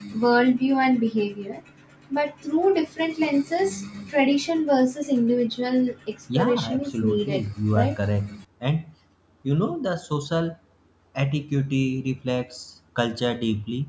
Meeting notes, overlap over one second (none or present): present